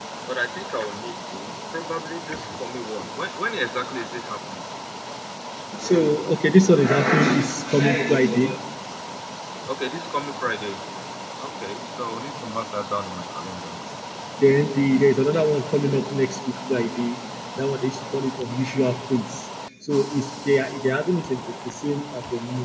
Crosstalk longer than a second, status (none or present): none